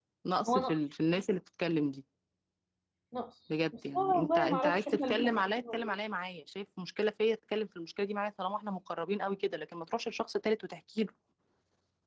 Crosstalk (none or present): present